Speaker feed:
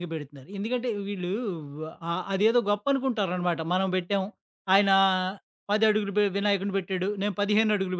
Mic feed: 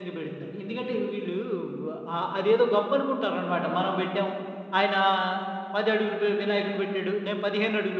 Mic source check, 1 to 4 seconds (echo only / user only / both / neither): echo only